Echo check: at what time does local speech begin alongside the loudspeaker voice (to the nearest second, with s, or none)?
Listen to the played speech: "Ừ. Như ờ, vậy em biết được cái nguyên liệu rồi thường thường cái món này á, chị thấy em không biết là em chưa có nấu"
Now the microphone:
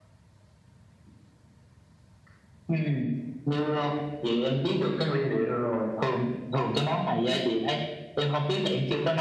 none